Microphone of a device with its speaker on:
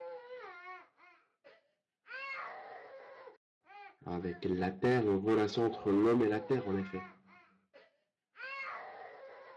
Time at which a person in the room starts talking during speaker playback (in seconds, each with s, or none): 4.0 s